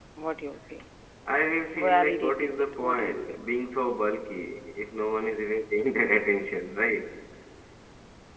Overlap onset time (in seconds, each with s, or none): 1.9 s